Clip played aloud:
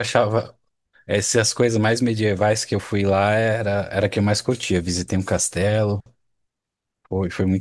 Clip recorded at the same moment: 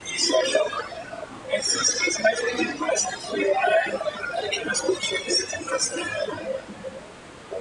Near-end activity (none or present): none